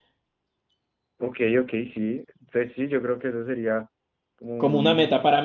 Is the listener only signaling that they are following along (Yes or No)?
No